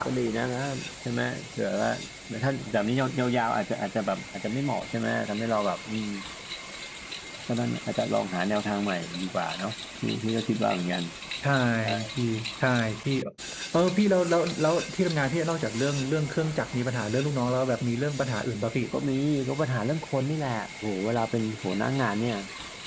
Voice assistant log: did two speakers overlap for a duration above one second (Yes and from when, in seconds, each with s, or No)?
No